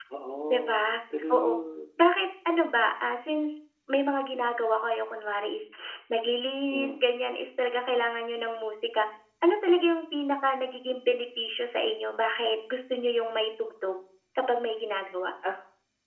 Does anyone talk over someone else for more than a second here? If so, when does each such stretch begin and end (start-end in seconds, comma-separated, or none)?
none